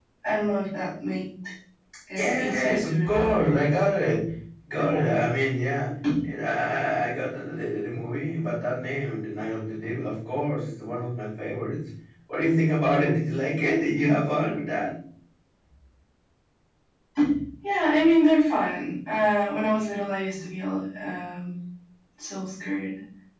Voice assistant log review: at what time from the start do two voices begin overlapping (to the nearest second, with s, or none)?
2 s